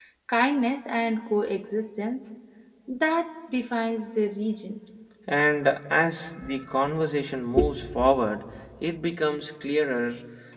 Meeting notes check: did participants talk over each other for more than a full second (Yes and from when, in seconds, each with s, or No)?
No